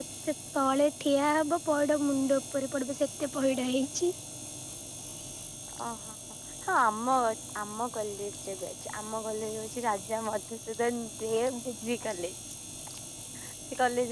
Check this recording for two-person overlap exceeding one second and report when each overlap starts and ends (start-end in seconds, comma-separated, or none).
none